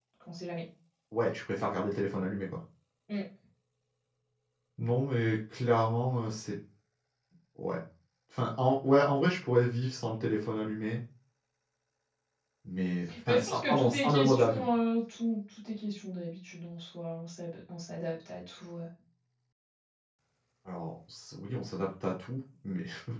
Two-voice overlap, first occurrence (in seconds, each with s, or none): 13.3 s